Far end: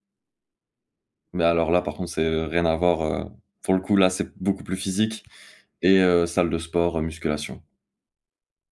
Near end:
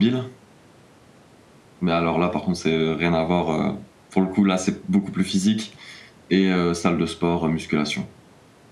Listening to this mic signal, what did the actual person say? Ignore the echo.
none

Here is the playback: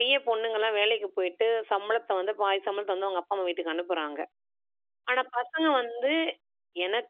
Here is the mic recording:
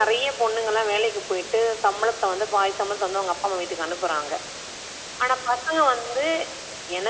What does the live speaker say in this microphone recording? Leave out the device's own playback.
none

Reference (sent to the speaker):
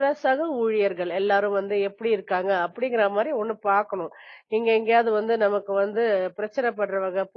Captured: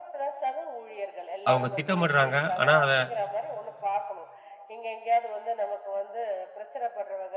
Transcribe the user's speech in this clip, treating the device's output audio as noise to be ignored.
அவங்க திட்டமிடுறாங்க. ஆனா, அத

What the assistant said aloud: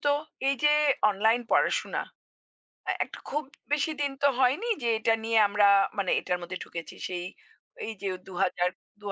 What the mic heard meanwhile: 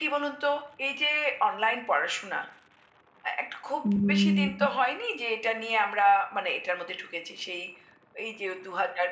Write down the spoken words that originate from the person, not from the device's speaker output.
হুম, হুম।

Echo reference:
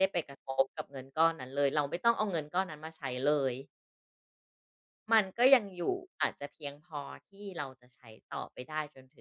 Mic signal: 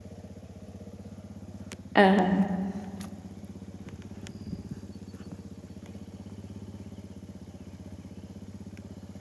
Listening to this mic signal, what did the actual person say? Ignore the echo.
อะฮะ

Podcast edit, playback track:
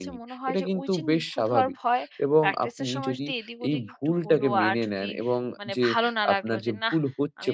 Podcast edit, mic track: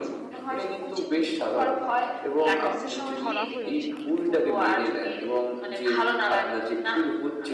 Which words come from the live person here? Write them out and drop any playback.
এই রং তুলি ধরা হয়ে ওঠেনি।

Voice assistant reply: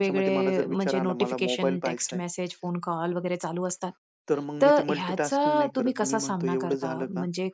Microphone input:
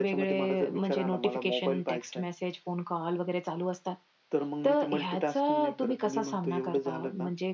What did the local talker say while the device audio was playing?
none

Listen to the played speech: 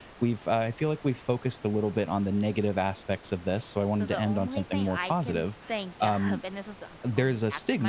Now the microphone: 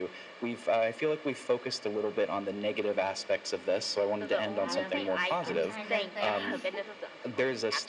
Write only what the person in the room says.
that is a question. I'm trying to think.

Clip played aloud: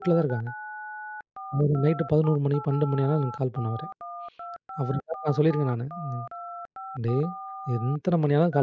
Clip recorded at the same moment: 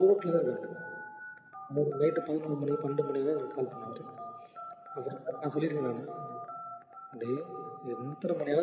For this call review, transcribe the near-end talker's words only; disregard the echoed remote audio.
none

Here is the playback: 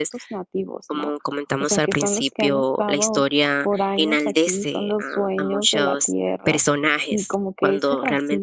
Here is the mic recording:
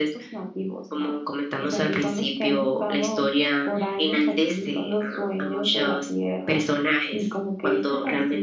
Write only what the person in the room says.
none

